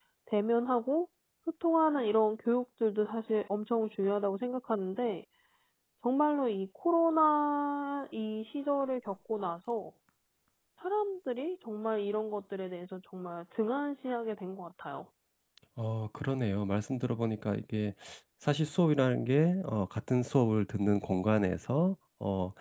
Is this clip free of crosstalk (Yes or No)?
Yes